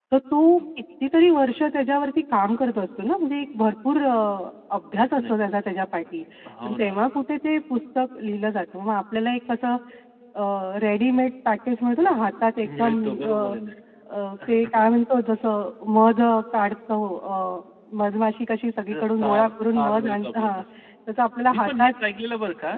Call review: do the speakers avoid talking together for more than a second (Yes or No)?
No